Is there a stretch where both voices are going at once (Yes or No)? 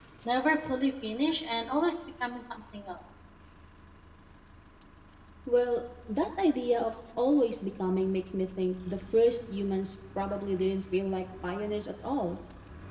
No